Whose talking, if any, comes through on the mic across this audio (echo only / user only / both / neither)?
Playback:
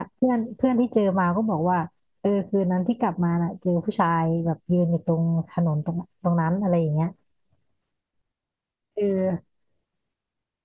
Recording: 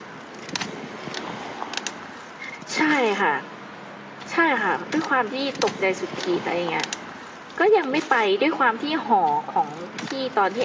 user only